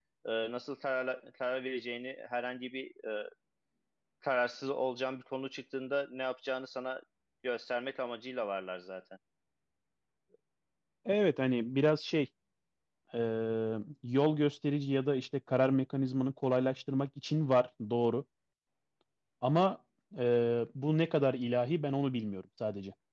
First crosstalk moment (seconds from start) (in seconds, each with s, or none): none